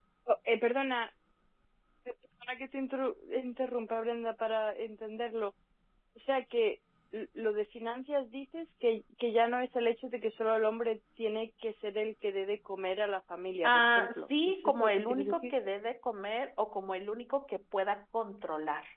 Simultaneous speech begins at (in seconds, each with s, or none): 13.6 s